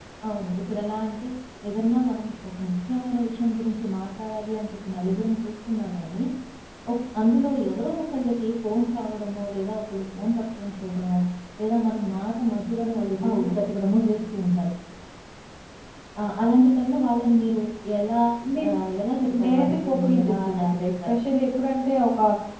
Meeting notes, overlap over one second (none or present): present